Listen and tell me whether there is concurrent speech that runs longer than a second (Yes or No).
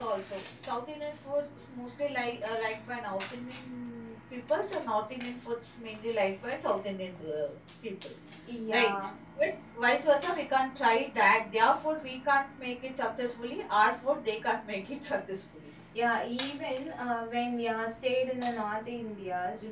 No